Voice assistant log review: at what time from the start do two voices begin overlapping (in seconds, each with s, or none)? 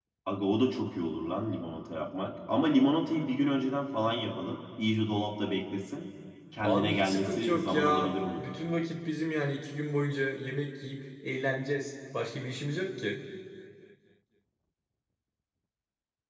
6.6 s